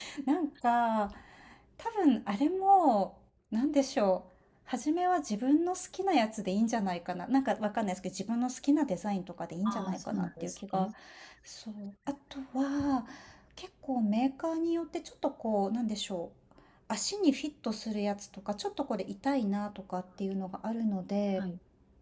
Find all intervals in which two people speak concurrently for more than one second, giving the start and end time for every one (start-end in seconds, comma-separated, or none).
9.6-10.9